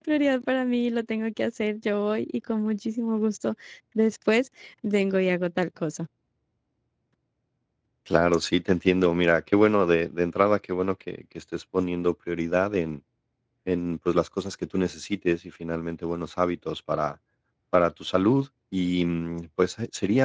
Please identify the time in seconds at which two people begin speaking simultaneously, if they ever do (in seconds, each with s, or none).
none